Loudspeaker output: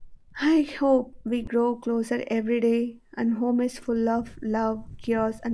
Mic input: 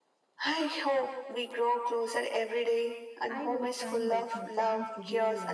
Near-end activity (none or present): present